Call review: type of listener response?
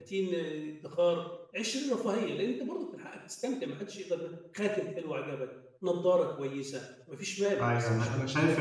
taking over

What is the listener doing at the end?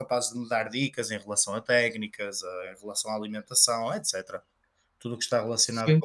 listening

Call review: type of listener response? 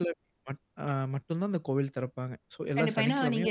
taking over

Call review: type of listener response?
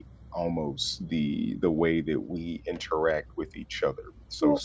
listening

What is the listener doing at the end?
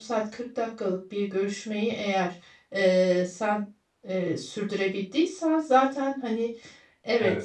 listening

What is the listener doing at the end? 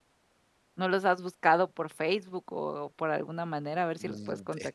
taking over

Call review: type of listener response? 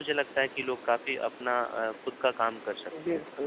taking over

